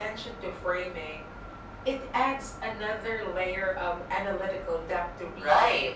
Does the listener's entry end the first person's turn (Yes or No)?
Yes